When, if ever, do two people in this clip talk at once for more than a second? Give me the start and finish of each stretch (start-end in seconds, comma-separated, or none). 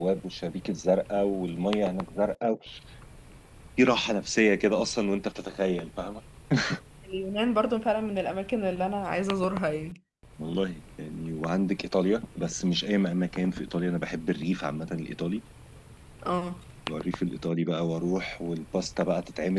none